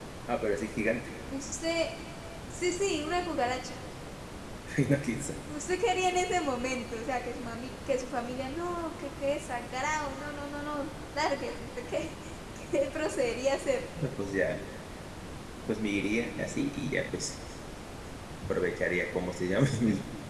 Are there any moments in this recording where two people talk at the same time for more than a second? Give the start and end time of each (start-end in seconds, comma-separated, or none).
none